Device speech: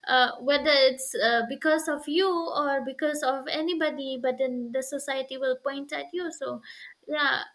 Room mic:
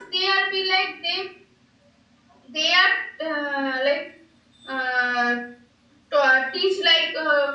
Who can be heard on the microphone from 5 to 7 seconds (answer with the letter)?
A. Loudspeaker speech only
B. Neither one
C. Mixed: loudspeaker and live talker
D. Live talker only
D